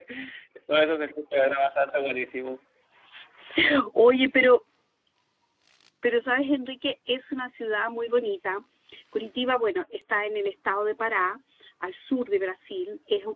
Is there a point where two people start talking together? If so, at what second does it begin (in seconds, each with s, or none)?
none